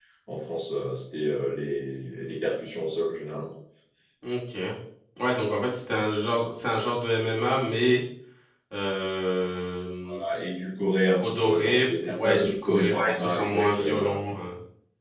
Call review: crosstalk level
present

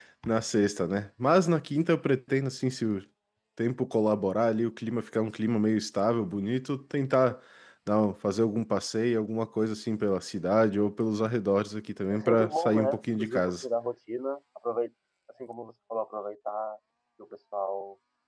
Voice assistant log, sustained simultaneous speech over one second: present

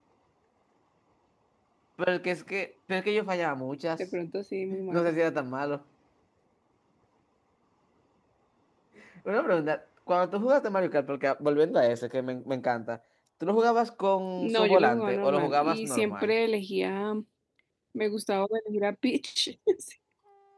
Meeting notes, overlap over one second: present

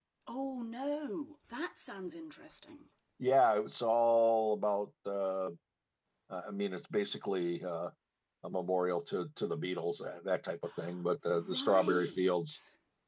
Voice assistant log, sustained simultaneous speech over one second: present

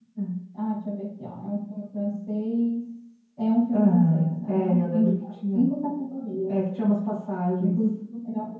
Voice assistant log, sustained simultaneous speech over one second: present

